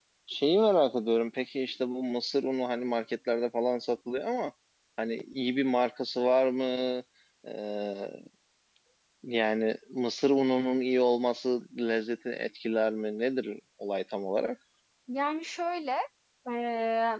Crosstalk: none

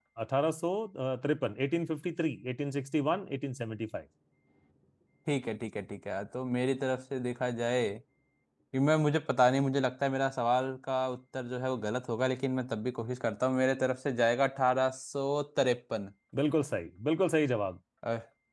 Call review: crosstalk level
none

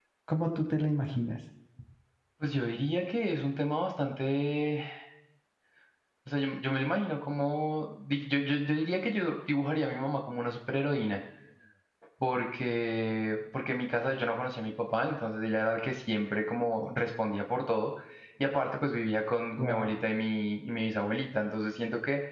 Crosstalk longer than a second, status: none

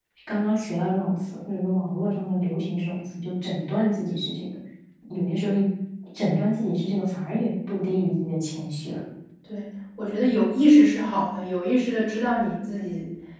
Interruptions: none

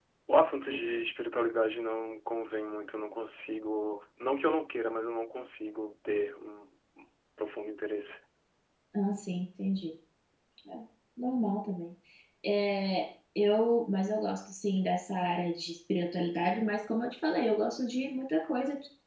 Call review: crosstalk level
none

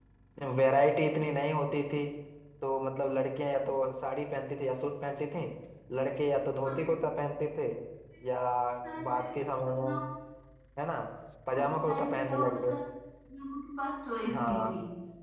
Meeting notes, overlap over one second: present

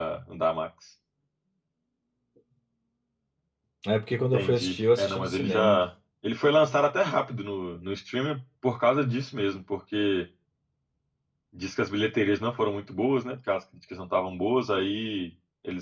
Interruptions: present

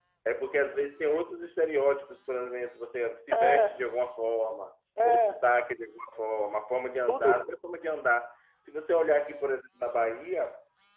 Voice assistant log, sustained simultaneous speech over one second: none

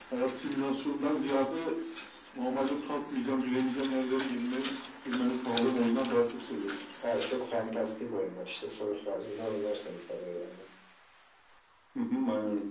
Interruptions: none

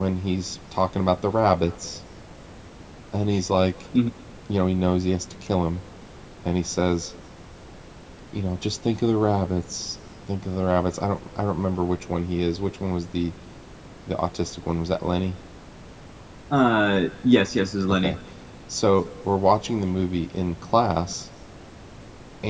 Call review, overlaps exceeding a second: none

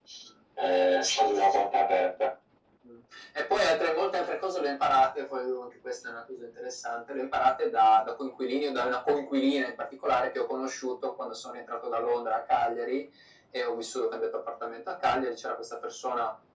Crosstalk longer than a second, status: none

